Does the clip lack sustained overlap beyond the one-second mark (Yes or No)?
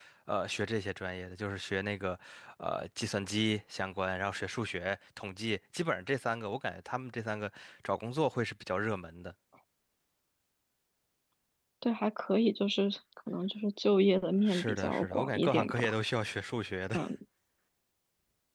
No